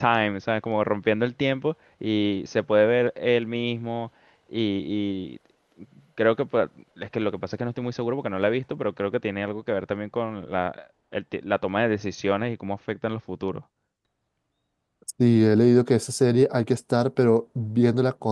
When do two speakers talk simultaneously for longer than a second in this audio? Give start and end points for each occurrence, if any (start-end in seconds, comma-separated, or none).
none